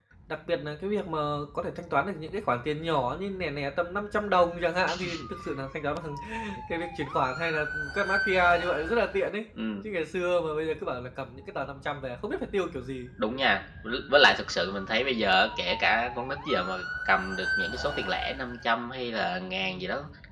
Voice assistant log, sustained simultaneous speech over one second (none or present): none